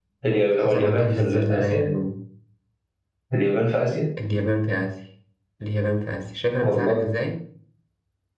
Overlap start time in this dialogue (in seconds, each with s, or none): 0.6 s